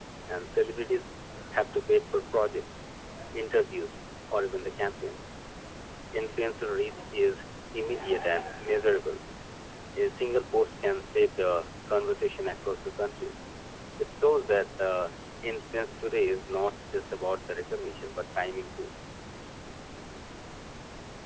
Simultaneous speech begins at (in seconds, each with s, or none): none